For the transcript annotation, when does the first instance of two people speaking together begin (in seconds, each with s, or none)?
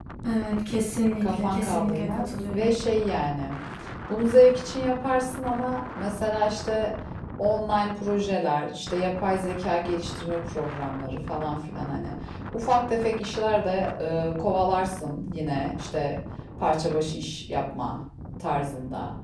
1.2 s